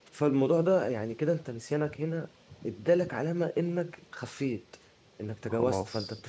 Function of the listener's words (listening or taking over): listening